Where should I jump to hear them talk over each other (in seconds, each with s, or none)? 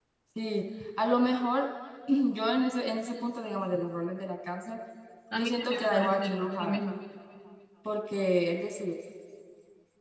5.3 s